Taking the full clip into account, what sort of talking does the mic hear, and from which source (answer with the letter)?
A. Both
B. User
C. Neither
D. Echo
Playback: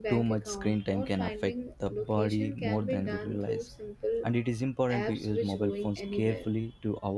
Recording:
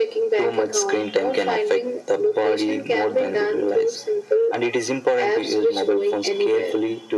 D